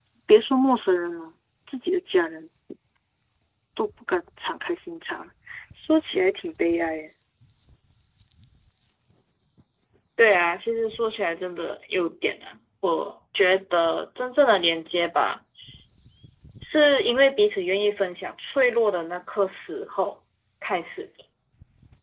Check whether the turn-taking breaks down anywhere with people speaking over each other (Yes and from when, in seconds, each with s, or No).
No